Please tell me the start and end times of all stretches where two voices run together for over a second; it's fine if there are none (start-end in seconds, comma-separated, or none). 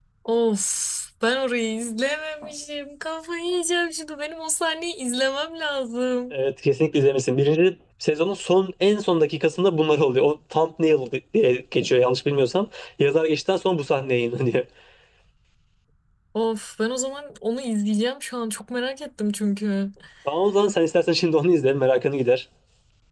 none